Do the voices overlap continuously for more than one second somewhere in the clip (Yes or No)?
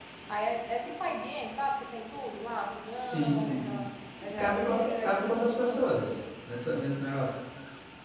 Yes